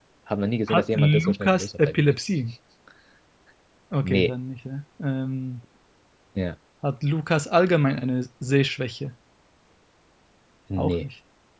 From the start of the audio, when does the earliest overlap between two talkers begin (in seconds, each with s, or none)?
0.7 s